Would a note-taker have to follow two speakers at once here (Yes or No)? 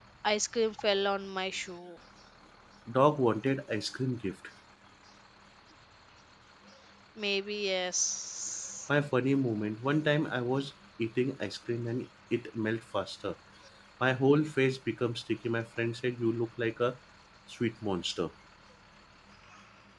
No